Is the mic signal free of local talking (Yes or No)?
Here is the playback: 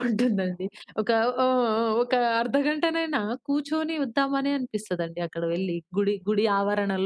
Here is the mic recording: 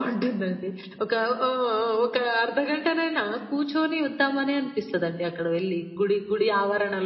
Yes